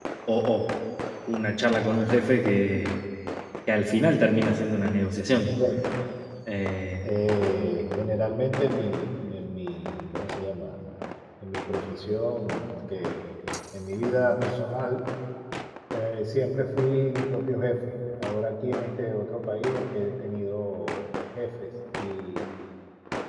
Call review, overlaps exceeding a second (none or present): none